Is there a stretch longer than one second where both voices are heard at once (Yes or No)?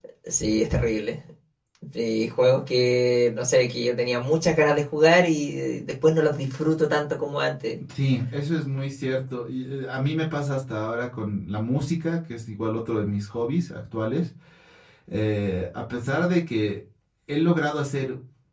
No